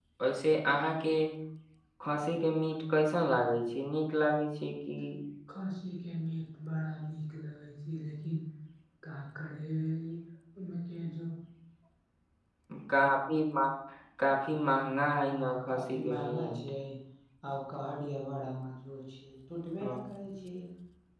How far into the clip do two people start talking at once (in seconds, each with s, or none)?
15.3 s